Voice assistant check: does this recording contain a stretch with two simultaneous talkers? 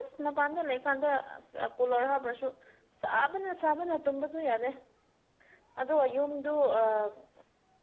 No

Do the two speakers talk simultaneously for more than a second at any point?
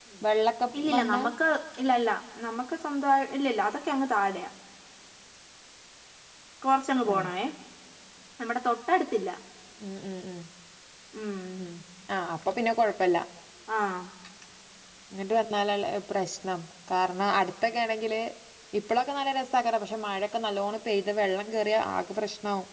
No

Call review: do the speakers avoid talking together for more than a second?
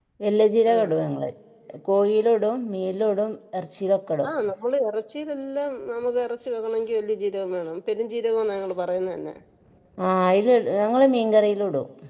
Yes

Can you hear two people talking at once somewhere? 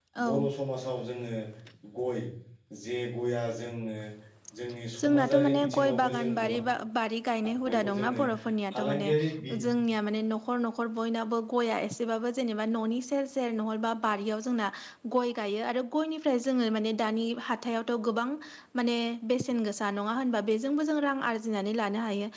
Yes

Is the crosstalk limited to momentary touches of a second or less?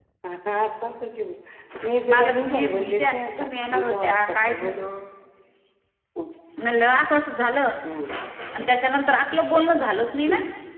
No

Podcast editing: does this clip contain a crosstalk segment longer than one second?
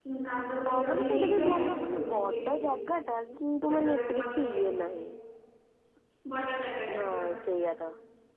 Yes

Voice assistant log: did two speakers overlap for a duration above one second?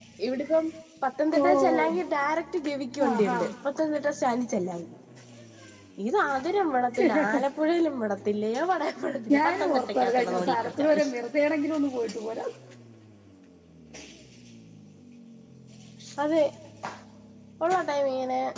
Yes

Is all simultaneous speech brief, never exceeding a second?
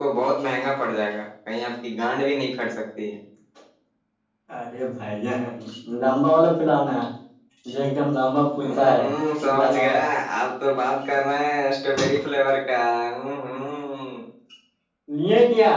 Yes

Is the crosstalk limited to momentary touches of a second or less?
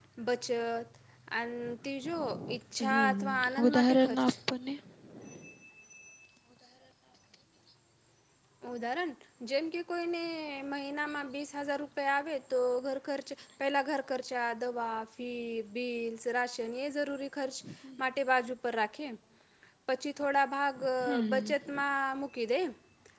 No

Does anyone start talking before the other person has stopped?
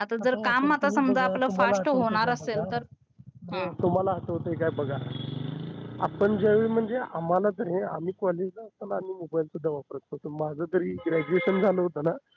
Yes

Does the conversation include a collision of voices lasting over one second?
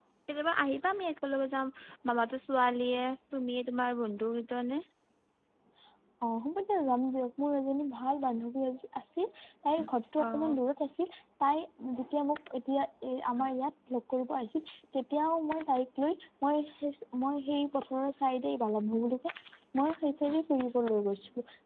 No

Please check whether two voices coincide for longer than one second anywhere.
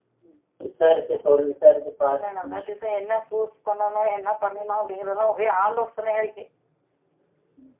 No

